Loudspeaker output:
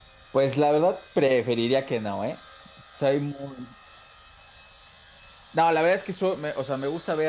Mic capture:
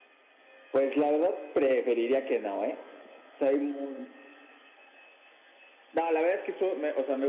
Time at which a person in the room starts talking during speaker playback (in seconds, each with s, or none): none